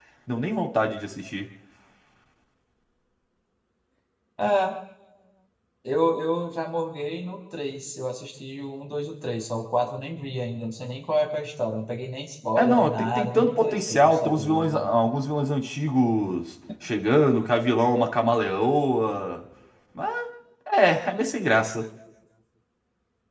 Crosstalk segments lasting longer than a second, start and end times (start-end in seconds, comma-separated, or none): 12.6-14.9